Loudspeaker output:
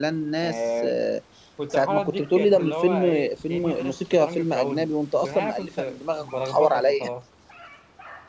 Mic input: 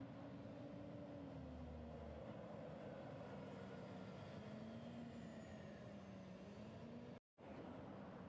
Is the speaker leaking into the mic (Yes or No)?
No